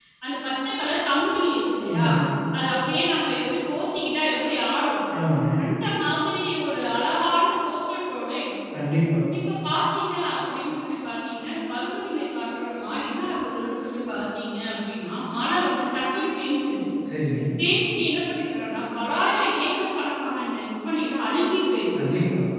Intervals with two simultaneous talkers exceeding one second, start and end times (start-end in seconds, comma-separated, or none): none